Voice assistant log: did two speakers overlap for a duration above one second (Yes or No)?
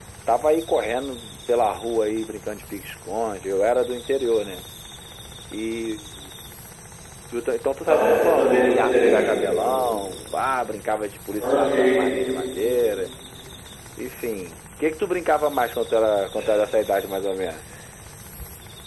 Yes